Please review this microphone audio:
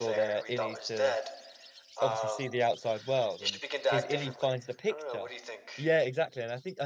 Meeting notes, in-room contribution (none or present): present